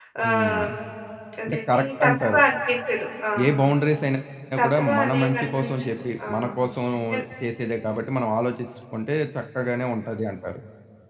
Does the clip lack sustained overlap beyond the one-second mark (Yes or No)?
No